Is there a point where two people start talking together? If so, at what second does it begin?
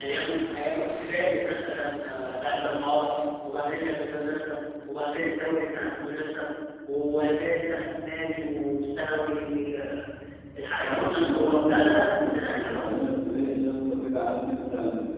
10.8 s

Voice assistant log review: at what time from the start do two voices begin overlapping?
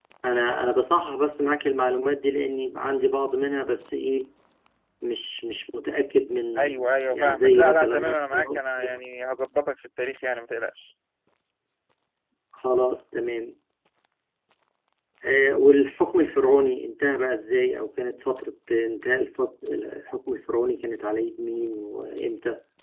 6.6 s

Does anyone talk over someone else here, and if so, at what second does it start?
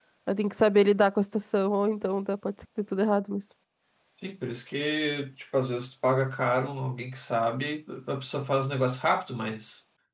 none

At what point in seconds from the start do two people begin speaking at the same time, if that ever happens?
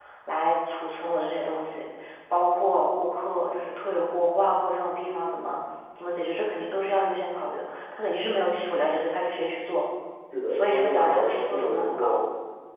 10.5 s

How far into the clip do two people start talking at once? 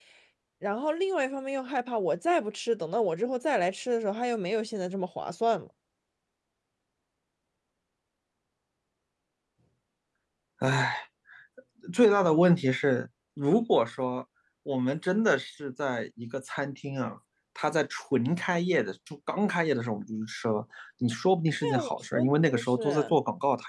21.6 s

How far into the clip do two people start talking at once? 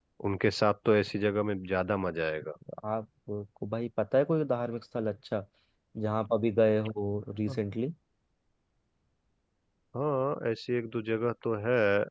none

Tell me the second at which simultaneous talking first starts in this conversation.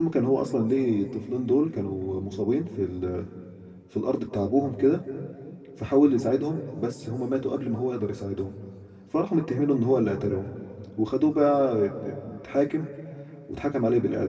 none

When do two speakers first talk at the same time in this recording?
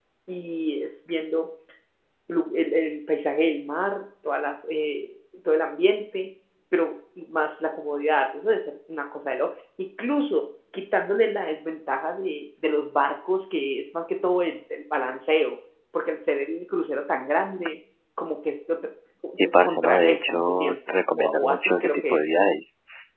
19.4 s

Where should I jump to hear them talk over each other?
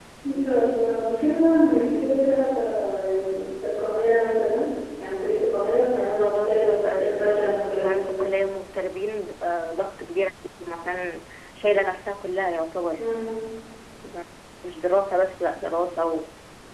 5.9 s

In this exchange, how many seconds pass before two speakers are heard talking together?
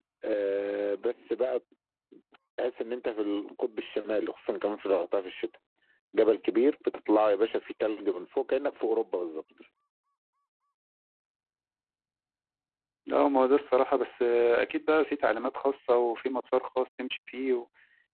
none

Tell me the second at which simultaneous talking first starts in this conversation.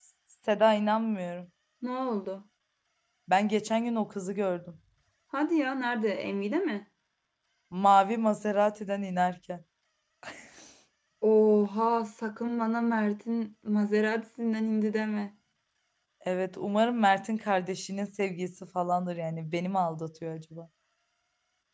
none

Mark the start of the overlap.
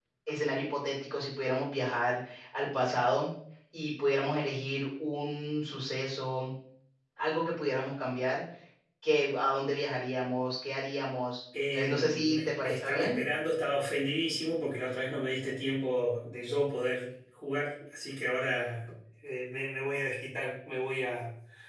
11.5 s

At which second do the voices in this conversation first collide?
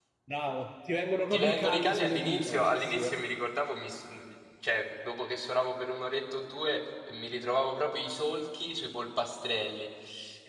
1.3 s

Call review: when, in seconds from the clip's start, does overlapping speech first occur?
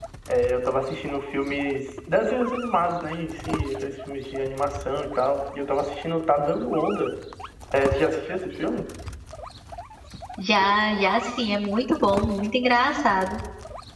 none

